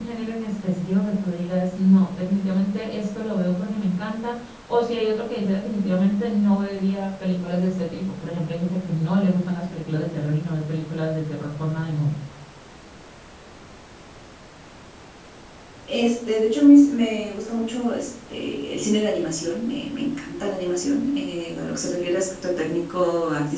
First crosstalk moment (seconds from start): none

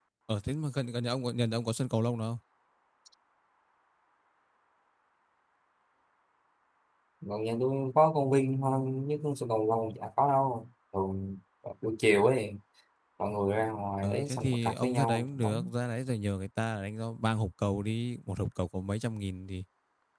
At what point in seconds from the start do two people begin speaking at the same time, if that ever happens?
14 s

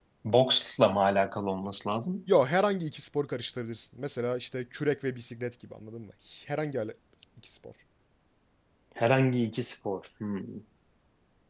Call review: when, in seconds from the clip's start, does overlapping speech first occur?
none

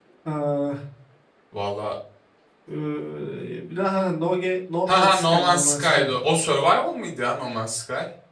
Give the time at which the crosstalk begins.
5 s

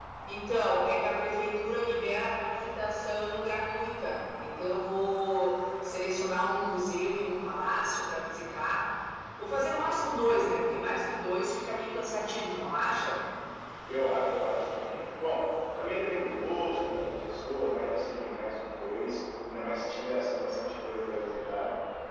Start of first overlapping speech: none

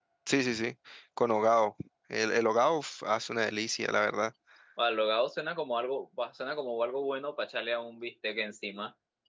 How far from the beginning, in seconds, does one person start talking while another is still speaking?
none

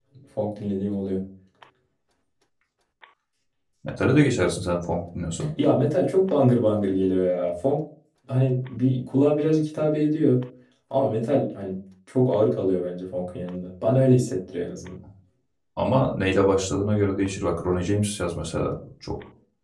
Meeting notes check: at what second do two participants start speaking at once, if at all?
none

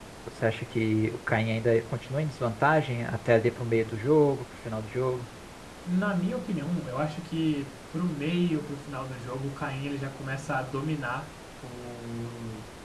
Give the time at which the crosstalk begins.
none

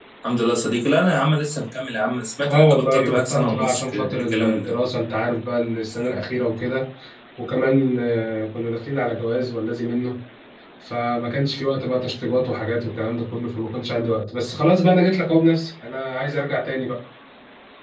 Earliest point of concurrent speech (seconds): 2 s

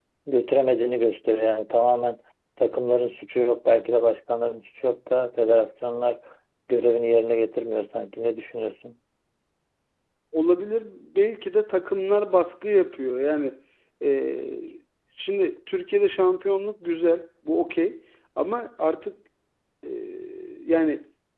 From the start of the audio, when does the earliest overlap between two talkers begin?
none

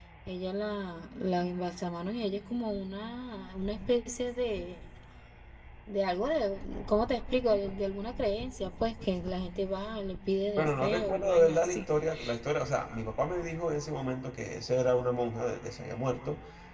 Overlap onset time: 11 s

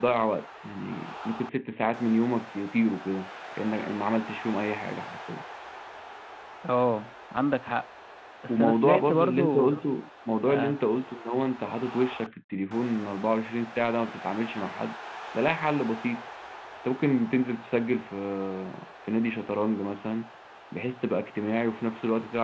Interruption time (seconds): 8 s

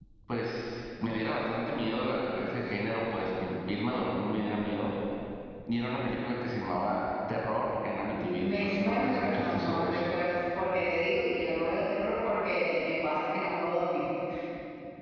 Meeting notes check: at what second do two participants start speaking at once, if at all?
8 s

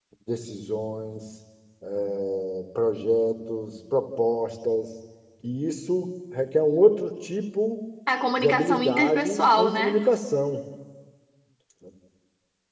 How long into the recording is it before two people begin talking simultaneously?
8 s

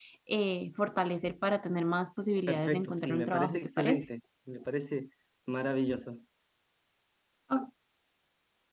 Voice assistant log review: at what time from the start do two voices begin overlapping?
2 s

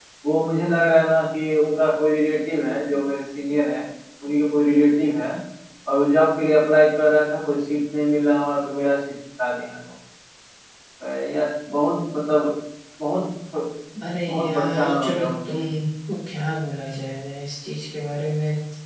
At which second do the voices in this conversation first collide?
14 s

